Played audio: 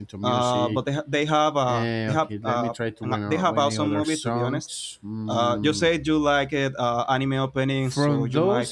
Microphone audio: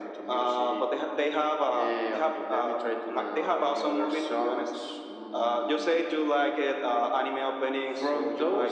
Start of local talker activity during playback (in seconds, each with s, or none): none